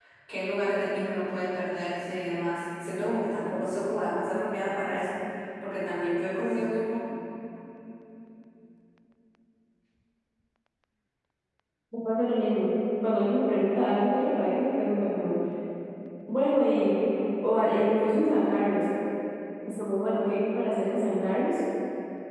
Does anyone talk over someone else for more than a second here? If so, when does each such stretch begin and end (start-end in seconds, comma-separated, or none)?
none